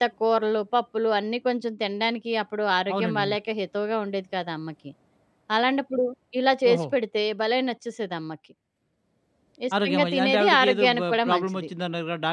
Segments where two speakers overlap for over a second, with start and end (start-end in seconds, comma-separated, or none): 9.8-11.6